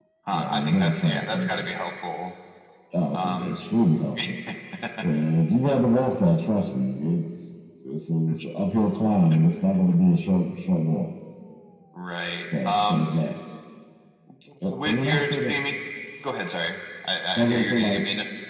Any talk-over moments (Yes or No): Yes